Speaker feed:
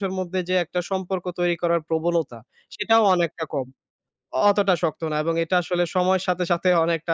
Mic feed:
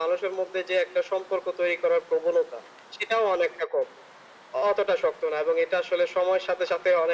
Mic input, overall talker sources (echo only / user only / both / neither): echo only